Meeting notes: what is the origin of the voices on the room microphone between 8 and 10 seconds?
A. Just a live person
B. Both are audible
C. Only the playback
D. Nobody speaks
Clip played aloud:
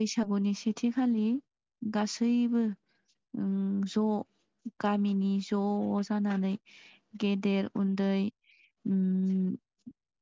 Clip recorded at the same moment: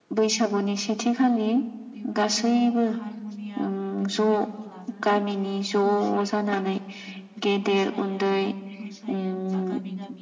B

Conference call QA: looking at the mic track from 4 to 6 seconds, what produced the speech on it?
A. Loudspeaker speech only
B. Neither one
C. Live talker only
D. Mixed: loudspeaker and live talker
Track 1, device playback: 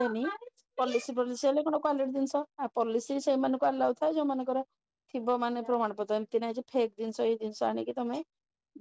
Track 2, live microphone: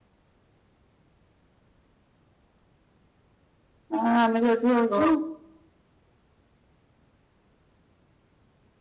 C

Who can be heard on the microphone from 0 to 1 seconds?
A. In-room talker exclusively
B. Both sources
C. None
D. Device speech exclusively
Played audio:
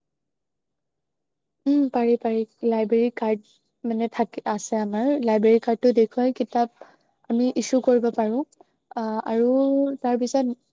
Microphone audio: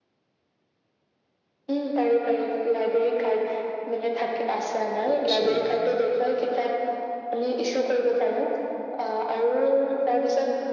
C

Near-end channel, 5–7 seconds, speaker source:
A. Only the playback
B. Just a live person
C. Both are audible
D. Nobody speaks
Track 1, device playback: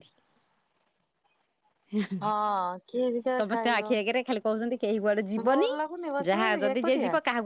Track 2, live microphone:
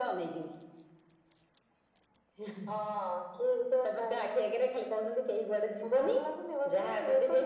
A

